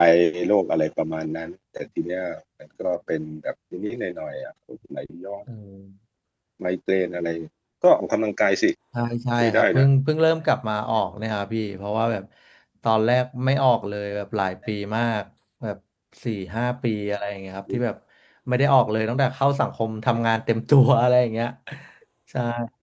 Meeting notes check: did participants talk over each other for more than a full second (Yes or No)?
No